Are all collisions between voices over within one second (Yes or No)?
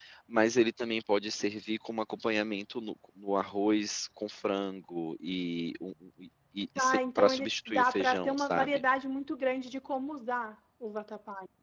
No